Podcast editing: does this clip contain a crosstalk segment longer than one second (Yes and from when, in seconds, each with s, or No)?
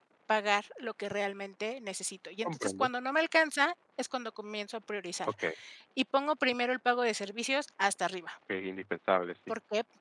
No